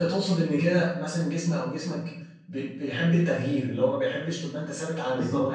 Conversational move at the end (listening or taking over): taking over